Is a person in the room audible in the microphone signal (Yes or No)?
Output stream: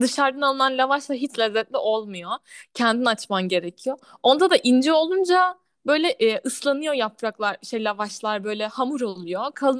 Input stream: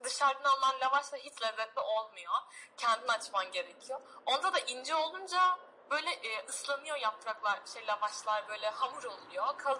No